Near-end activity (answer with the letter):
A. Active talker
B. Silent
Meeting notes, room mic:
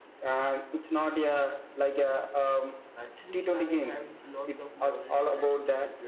A